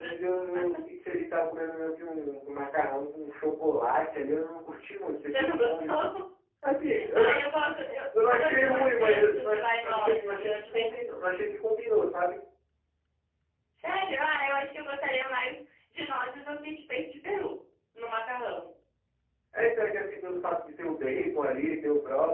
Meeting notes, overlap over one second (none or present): present